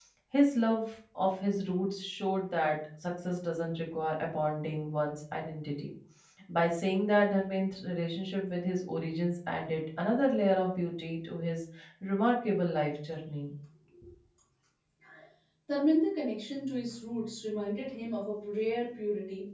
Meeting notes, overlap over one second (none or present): none